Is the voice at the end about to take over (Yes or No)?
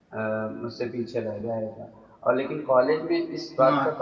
No